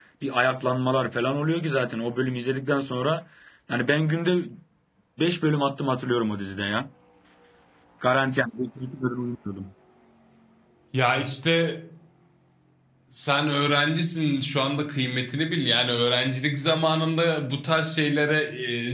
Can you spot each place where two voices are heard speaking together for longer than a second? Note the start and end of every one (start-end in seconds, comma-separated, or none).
none